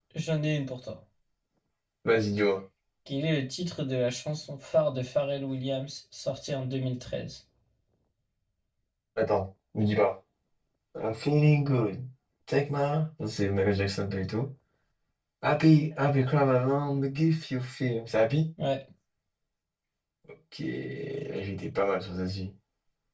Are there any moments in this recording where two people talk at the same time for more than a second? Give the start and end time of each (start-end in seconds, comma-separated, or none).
none